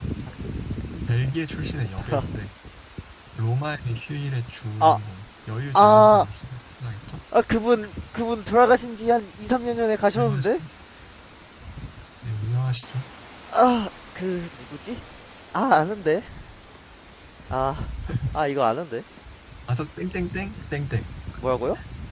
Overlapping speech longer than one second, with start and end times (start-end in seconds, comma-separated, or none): none